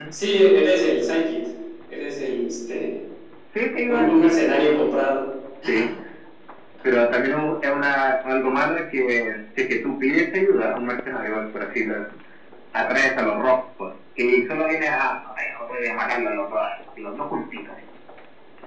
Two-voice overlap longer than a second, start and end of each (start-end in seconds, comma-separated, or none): none